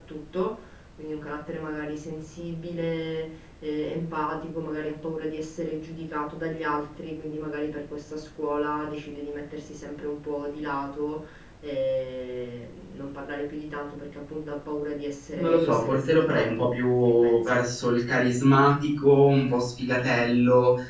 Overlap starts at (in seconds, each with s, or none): 15.3 s